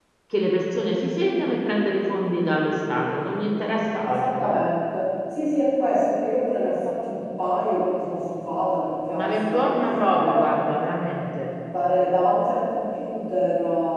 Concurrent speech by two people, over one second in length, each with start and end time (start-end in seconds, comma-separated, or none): 9.1-10.5